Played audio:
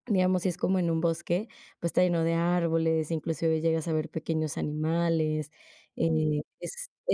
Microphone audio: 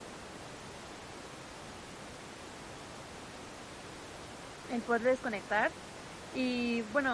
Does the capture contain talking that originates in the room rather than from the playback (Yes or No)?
Yes